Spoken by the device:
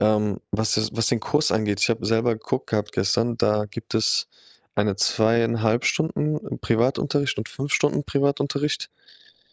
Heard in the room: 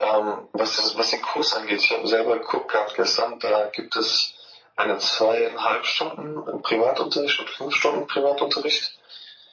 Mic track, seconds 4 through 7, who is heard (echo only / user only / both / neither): echo only